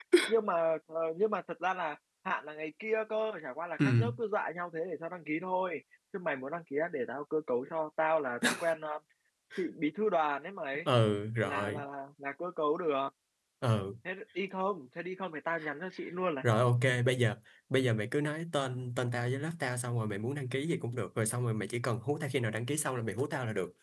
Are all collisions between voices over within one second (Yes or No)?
Yes